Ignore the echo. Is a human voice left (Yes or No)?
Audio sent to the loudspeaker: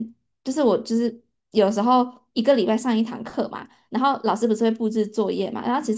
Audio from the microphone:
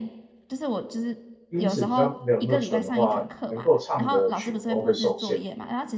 Yes